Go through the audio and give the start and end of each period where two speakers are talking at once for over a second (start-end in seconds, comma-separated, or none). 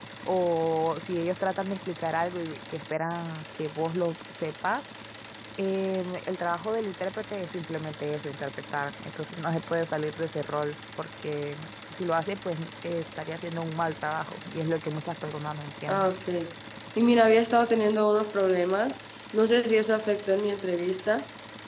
none